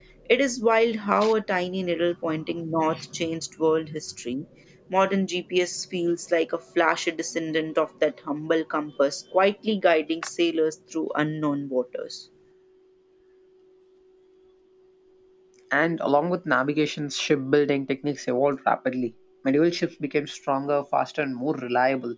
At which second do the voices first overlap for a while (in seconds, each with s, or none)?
none